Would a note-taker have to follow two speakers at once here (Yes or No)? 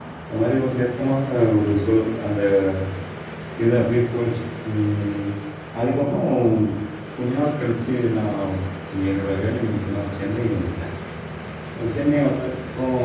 No